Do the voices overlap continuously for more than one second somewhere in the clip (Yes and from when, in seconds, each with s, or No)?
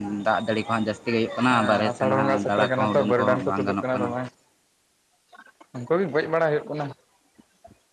Yes, from 1.5 s